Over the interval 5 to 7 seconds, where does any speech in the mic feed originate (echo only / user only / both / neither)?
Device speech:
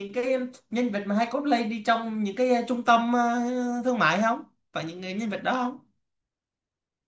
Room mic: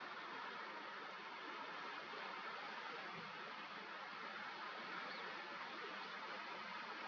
neither